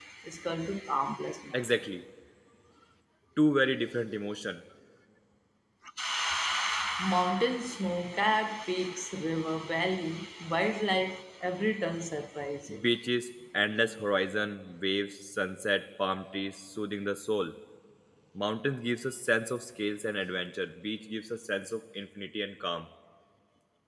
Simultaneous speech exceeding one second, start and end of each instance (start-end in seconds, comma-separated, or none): none